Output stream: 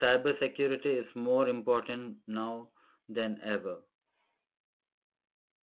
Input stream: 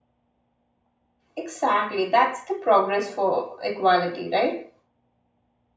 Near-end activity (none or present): present